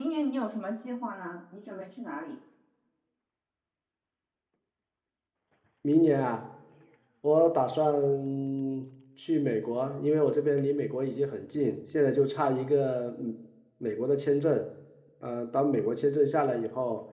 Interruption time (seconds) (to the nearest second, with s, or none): none